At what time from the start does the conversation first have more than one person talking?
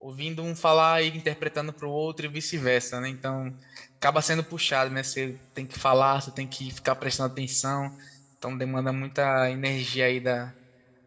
none

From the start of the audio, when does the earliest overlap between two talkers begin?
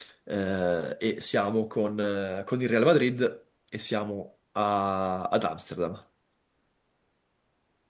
none

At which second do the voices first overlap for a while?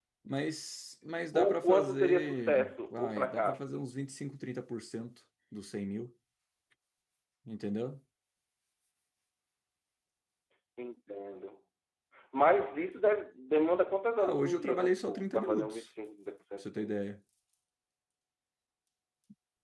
1.3 s

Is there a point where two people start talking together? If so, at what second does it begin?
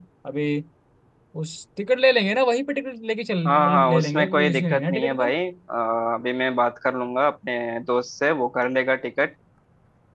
3.5 s

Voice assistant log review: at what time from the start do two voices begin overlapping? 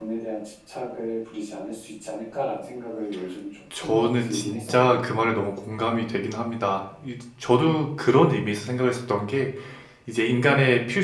3.7 s

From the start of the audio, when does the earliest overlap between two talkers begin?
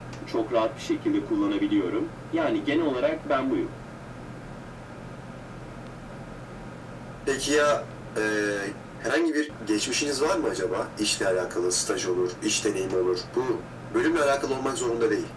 none

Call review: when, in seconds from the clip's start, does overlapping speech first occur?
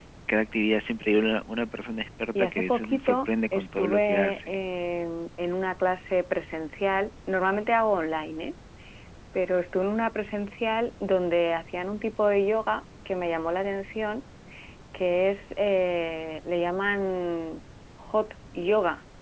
2.4 s

